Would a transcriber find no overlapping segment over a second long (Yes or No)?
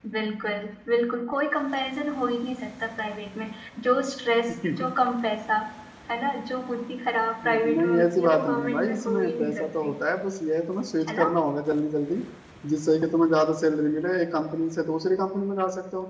No